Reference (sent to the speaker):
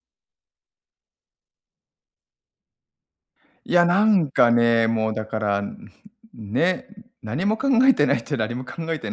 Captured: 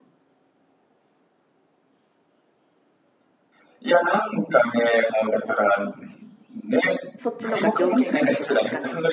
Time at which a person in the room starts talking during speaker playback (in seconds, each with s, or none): 7.2 s